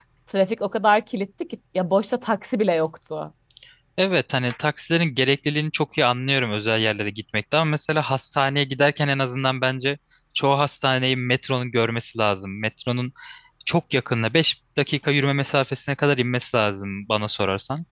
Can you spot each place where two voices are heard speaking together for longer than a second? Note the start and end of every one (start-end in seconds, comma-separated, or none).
none